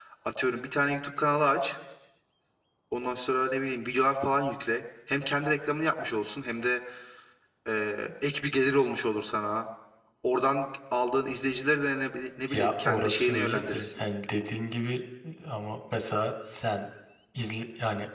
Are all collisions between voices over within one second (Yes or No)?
No